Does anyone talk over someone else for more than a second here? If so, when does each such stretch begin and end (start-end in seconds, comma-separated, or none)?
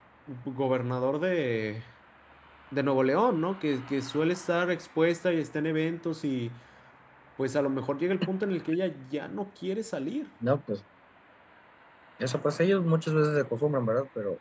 none